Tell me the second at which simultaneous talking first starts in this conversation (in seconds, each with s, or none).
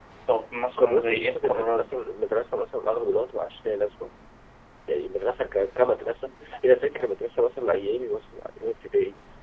0.8 s